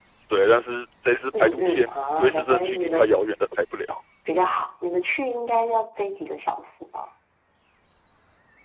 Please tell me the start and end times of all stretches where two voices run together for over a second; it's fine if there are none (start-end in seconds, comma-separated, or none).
1.3-3.2